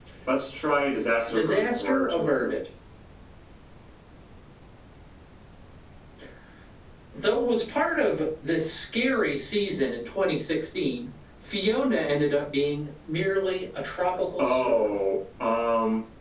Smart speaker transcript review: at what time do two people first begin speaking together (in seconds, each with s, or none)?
1.3 s